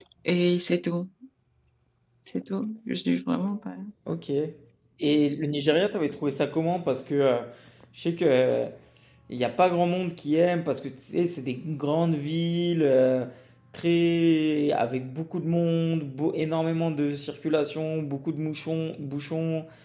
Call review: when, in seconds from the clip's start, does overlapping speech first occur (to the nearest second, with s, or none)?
none